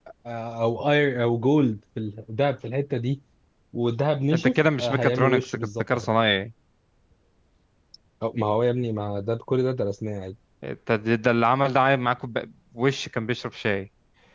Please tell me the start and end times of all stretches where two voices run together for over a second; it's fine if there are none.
4.3-6.1

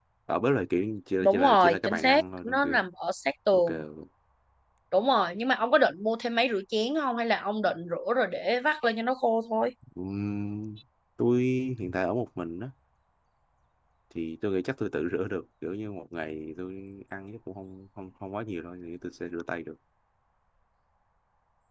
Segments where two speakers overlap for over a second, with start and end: 1.2-2.8

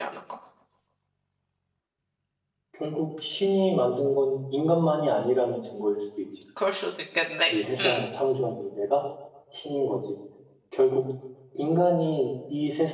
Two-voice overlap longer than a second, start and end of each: none

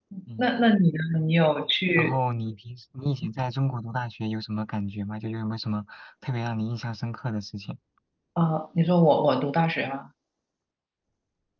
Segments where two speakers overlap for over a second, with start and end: none

